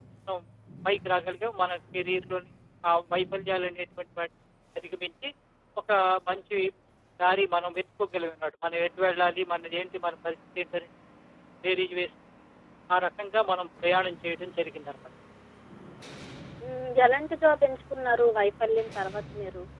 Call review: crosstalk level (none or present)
none